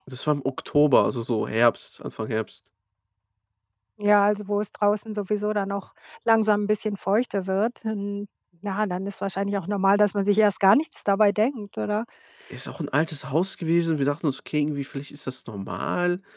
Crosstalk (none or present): none